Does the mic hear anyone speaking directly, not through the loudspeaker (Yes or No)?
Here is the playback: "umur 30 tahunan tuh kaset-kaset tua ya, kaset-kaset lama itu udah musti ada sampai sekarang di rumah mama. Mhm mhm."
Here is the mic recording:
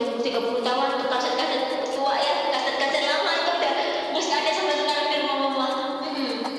No